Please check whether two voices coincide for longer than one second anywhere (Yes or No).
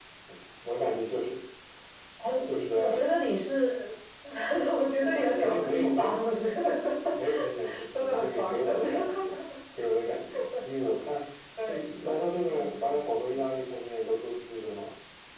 Yes